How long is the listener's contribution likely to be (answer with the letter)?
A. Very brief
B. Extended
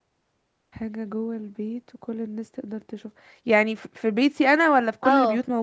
B